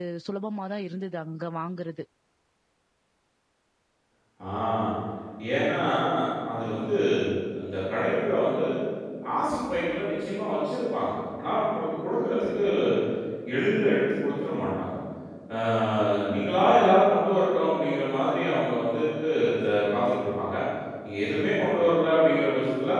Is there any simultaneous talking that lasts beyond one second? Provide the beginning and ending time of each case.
none

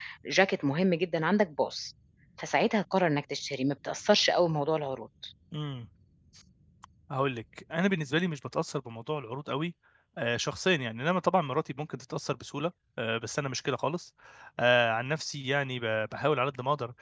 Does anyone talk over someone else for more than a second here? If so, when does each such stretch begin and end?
none

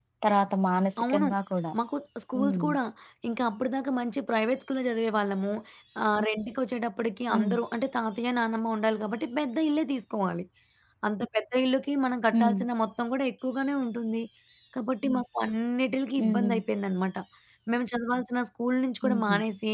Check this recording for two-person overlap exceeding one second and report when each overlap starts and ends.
none

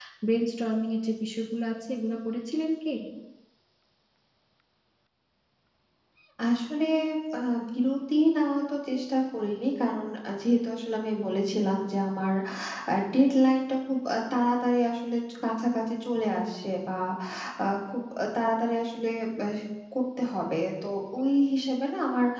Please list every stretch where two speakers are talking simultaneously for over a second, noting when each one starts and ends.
none

